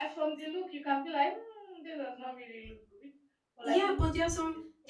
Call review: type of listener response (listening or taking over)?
taking over